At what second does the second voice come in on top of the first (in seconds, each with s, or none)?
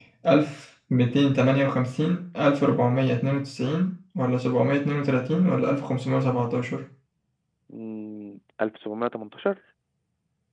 none